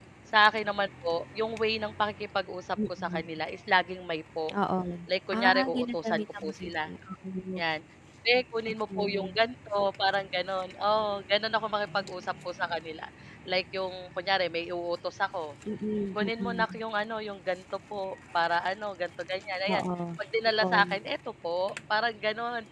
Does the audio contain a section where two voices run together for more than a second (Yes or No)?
Yes